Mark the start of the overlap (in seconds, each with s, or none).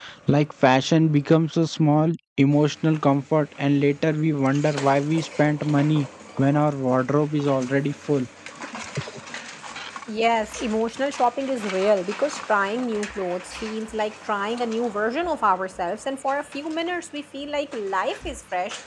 none